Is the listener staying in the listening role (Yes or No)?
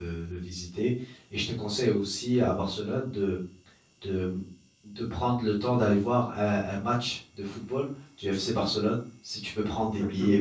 No